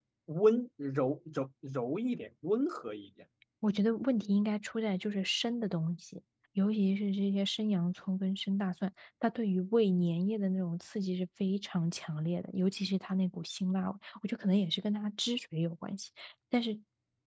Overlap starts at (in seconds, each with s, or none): none